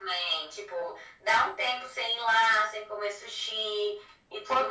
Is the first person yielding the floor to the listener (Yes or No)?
Yes